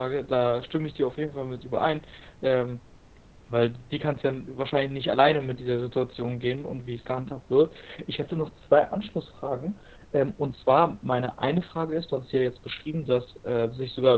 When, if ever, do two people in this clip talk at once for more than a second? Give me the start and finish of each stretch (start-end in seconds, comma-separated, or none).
none